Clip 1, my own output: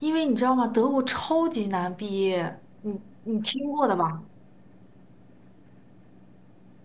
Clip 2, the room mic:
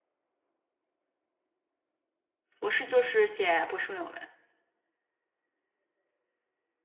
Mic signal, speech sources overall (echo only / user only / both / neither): user only